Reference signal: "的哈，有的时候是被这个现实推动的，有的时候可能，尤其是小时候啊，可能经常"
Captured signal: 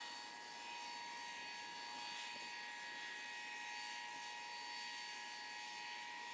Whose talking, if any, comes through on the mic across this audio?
neither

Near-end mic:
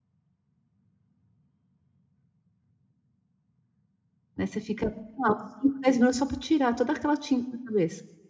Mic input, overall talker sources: user only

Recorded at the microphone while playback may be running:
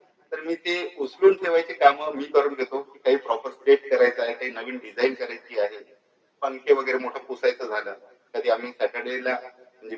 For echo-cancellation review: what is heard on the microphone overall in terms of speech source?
echo only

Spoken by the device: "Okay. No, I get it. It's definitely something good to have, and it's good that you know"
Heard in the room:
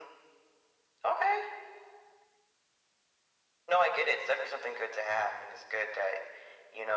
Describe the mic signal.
echo only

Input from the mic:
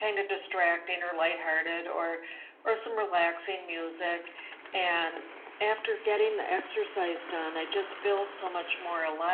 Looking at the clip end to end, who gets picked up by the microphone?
echo only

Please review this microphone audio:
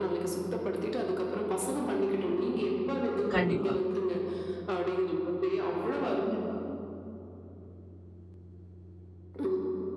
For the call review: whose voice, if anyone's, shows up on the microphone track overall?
both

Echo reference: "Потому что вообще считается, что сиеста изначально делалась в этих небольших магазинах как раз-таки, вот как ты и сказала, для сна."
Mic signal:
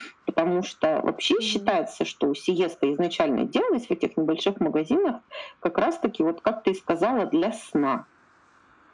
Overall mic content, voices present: both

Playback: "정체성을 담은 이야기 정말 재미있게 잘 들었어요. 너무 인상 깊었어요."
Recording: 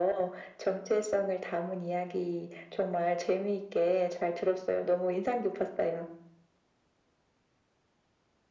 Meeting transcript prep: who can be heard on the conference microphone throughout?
echo only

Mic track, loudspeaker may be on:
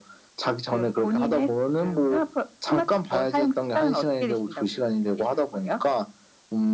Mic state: echo only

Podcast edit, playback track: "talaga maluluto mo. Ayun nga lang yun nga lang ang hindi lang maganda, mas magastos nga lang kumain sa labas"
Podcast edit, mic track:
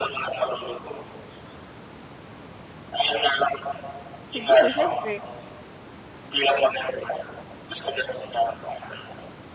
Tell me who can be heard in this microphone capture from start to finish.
both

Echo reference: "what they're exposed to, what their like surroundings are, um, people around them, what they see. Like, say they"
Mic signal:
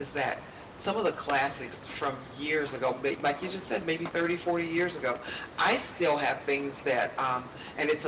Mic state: user only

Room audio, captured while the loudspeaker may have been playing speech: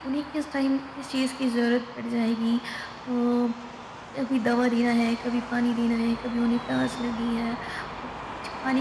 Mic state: echo only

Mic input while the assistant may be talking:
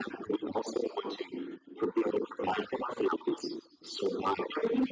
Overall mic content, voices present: echo only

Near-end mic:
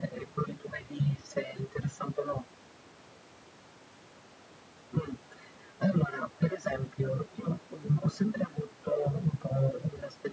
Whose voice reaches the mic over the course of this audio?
echo only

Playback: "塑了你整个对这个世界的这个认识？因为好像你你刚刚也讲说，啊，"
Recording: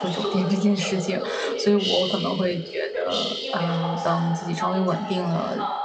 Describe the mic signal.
both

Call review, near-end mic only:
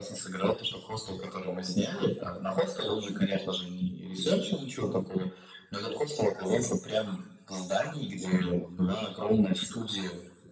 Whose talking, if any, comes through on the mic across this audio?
echo only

